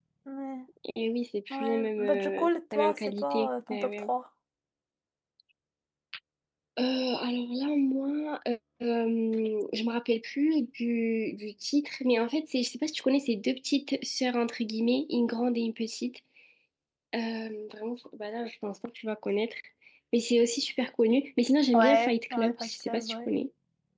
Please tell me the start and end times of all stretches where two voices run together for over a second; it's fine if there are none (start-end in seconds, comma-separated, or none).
1.5-4.1, 21.8-23.3